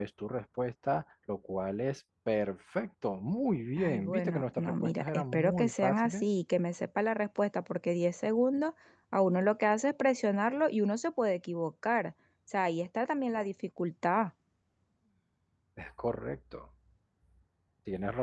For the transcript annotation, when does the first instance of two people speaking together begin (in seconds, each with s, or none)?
3.8 s